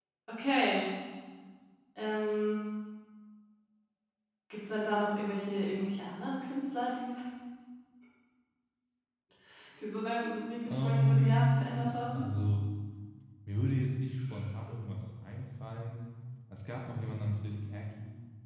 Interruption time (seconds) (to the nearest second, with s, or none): 11 s